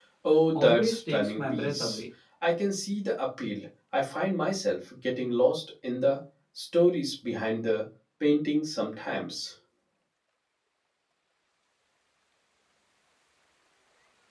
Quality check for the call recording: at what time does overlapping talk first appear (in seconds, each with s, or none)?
0.6 s